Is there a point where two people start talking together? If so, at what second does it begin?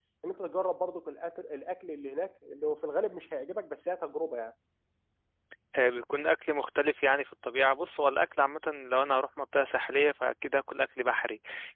none

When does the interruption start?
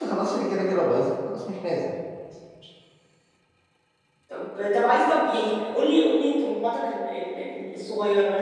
none

